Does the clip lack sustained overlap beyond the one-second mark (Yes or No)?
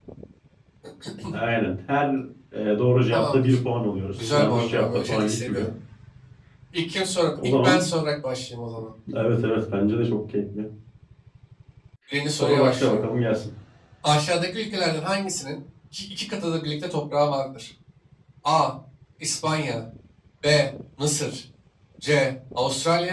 No